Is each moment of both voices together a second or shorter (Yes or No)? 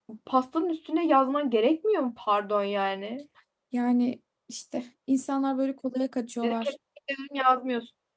Yes